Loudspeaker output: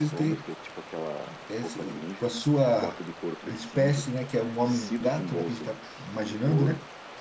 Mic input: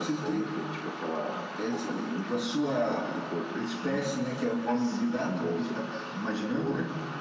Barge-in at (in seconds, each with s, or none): none